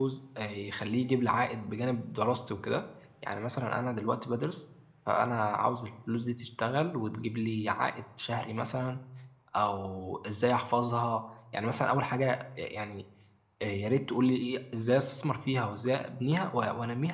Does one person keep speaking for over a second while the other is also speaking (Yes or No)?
No